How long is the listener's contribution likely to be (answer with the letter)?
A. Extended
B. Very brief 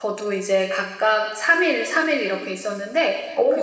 B